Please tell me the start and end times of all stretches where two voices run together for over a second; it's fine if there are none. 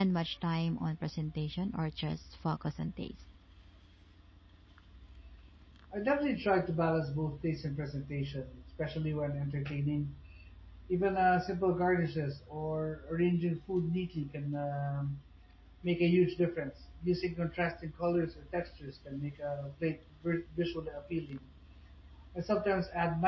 none

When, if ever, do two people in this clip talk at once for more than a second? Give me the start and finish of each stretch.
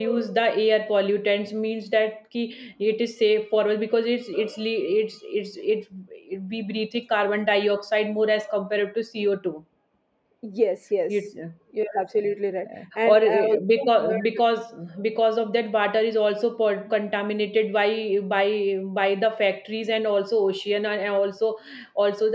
13.0-14.3

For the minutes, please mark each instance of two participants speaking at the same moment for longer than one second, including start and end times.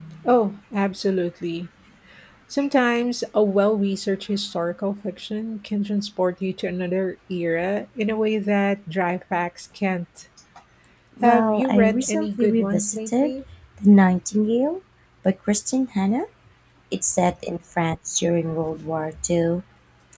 11.2-13.3

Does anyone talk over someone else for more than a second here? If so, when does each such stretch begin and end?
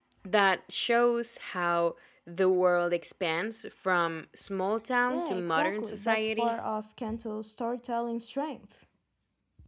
5.0-6.5

